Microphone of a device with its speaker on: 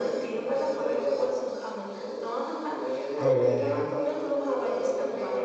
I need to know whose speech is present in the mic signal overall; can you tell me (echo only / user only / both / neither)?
both